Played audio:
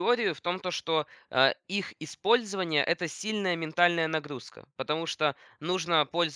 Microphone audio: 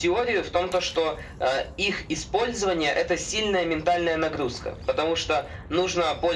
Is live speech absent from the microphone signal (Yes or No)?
Yes